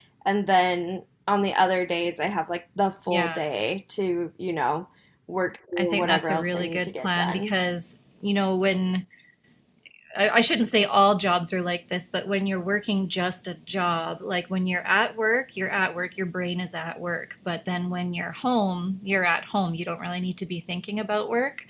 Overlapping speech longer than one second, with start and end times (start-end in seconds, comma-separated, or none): 5.8-7.5